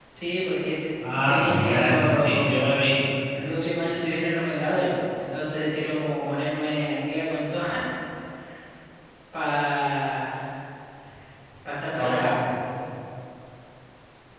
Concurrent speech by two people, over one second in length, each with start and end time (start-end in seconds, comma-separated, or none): 1.2-2.6